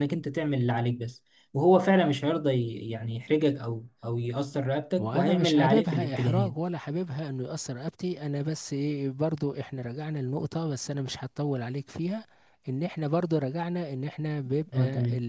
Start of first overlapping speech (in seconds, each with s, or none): 5.0 s